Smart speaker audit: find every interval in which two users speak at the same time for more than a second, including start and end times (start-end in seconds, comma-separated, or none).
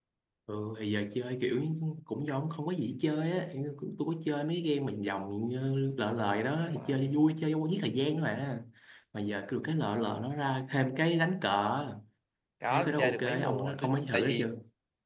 12.7-14.5